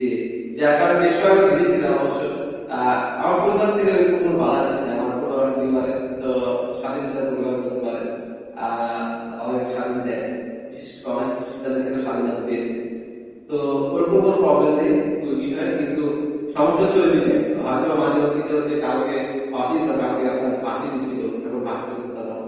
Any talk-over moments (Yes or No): No